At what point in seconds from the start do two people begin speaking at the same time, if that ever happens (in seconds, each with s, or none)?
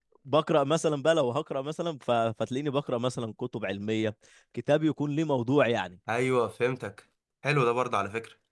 none